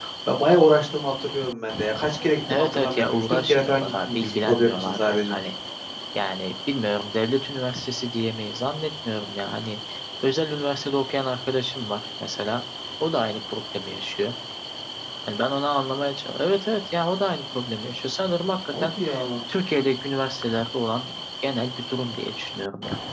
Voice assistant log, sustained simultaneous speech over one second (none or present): present